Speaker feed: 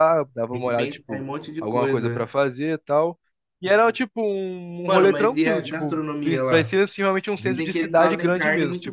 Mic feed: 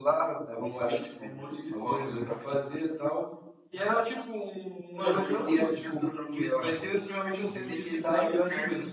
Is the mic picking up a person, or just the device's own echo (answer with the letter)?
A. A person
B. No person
B